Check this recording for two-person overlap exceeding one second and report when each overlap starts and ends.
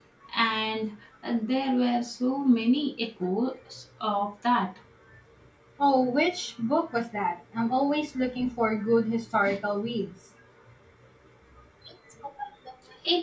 none

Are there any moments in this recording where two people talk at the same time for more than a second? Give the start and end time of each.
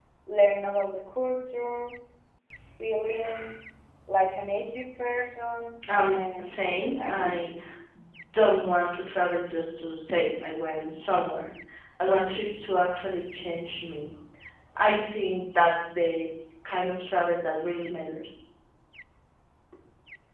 6.0-7.3

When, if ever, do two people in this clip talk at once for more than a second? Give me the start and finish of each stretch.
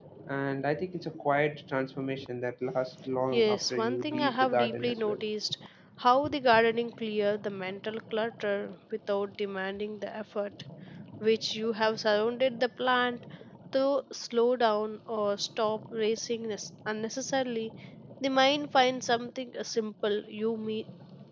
3.3-5.2

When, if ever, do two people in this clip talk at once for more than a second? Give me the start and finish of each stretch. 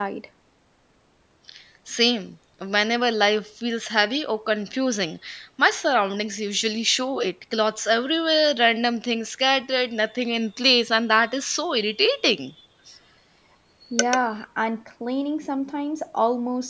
none

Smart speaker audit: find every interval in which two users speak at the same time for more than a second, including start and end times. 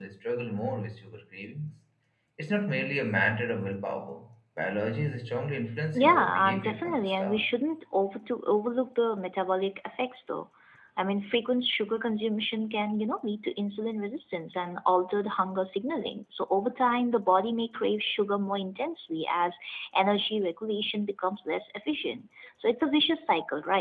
6.0-7.4

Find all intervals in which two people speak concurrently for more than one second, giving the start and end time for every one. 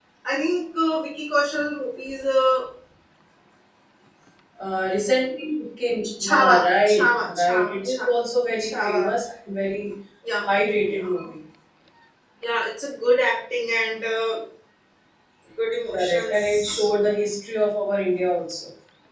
6.2-8.1, 15.9-17.2

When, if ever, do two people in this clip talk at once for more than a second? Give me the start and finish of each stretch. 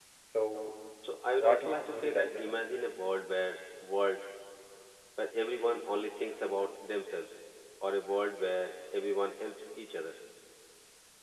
1.4-2.6

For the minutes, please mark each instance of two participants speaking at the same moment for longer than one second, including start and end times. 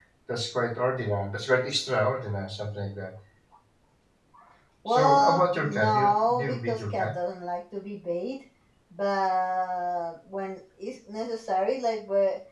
4.9-7.1

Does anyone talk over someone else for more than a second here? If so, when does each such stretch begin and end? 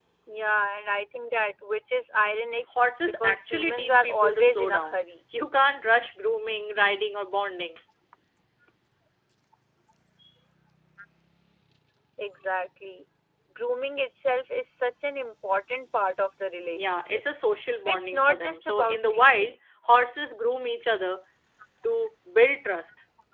3.2-5.0, 17.9-19.6

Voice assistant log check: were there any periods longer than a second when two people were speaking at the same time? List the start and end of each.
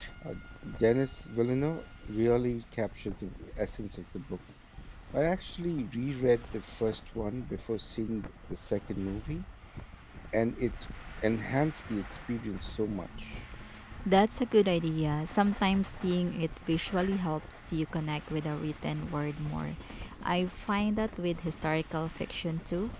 none

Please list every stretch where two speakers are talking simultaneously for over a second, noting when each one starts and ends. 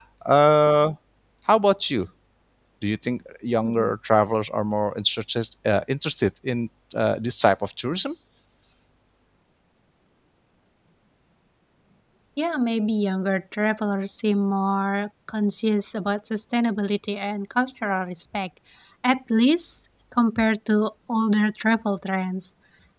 none

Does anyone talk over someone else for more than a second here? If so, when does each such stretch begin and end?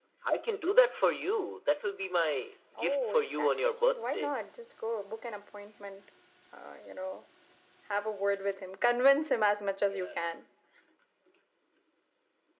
2.8-4.3

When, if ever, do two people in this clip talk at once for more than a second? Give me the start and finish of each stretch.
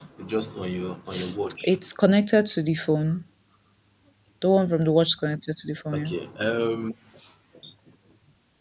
none

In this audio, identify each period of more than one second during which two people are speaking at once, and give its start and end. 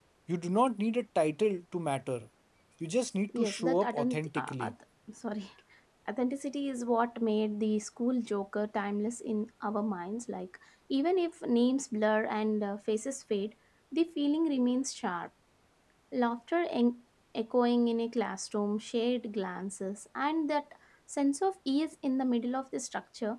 3.4-4.7

